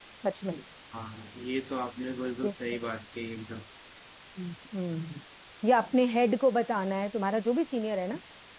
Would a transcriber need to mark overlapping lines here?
No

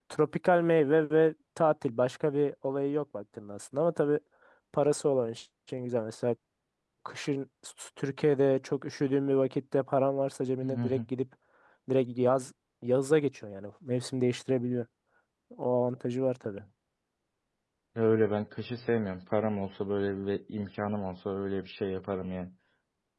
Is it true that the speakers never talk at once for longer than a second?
Yes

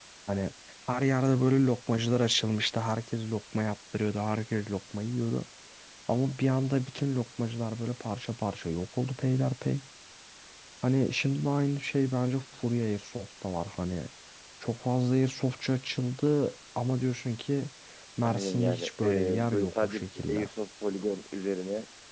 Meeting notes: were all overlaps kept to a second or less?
No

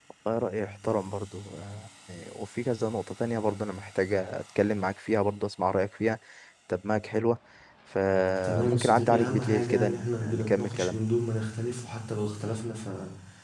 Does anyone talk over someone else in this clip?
Yes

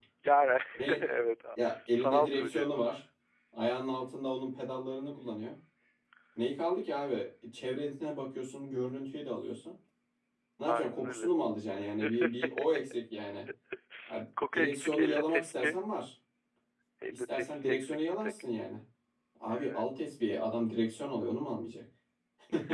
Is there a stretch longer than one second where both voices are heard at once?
Yes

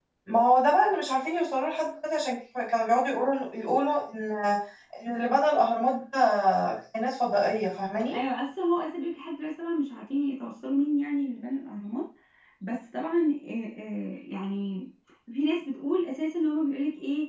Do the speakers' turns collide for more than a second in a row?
No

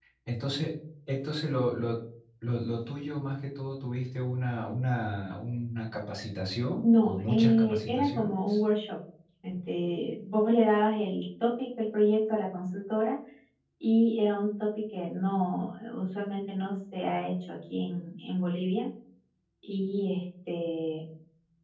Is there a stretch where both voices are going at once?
Yes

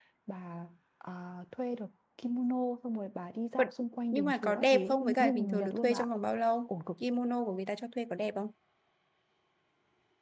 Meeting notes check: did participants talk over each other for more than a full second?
Yes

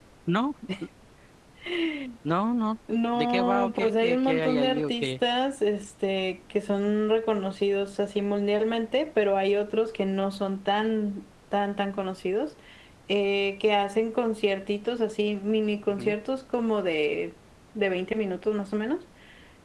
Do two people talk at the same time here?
Yes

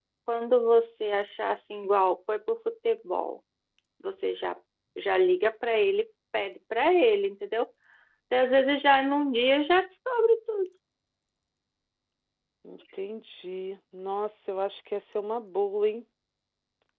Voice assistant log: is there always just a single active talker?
Yes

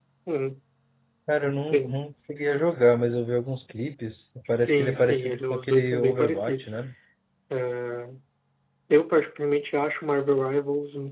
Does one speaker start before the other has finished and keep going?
Yes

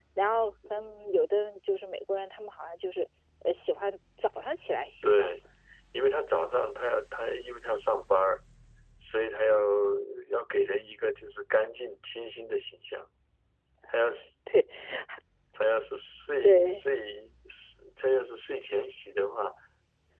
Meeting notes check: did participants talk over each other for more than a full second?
No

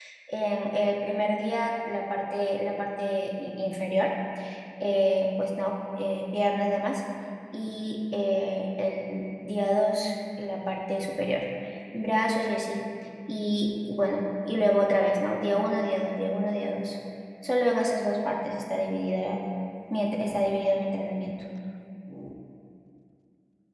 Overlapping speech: No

